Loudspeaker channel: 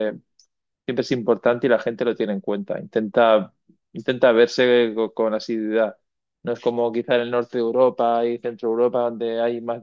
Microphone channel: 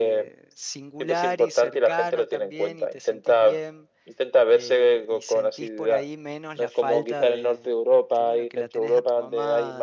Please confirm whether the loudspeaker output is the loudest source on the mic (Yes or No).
Yes